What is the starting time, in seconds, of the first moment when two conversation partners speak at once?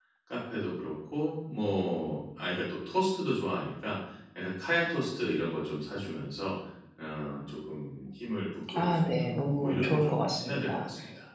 8.7 s

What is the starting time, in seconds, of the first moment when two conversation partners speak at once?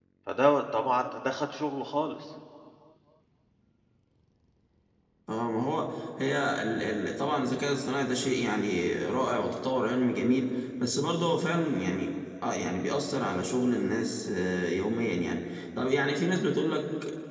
none

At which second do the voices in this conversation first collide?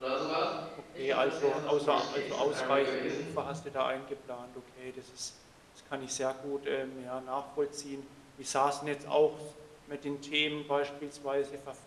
1.0 s

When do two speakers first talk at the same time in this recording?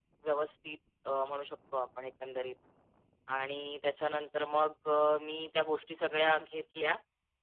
none

